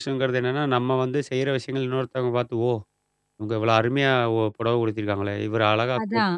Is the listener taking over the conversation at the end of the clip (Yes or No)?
Yes